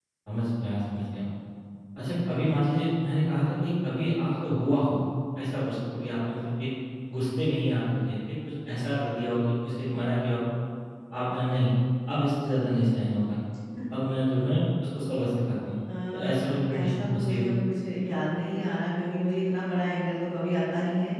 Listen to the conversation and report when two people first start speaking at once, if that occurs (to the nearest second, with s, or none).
16 s